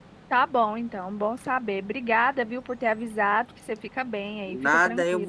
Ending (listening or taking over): taking over